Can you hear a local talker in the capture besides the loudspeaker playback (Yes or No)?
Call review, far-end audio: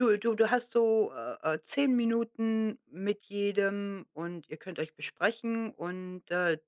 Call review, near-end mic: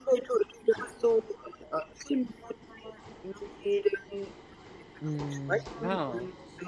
Yes